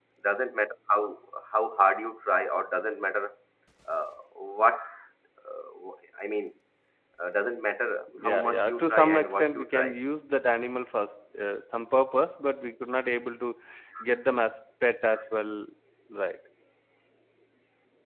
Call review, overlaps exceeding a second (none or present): present